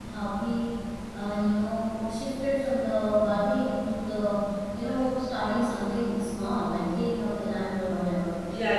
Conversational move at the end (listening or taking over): taking over